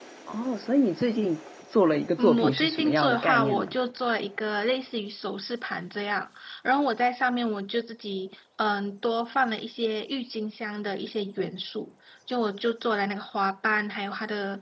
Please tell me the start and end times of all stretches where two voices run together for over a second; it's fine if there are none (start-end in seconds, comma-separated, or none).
2.2-3.6